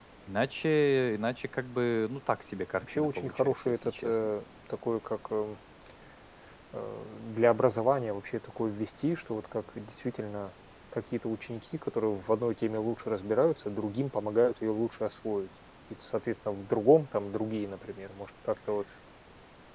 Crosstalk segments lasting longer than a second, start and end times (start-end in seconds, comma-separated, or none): 2.8-4.3